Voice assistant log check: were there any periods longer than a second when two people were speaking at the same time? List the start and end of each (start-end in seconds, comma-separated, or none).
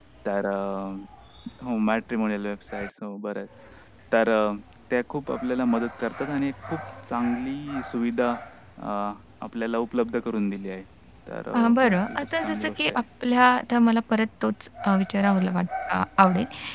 11.5-13.0